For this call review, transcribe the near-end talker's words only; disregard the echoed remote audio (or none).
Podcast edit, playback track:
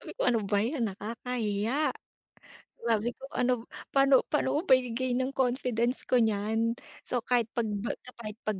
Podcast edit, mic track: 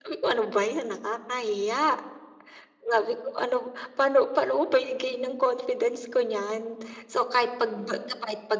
none